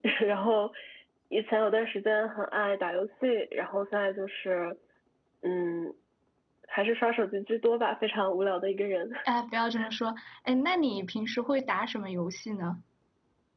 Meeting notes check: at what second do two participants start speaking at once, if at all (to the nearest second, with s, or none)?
none